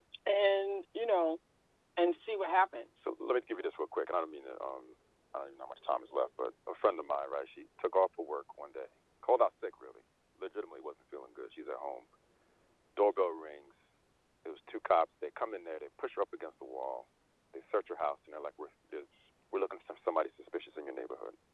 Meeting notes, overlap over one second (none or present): none